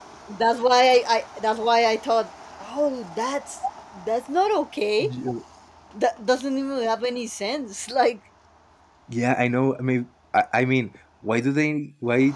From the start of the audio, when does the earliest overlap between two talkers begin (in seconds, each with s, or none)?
none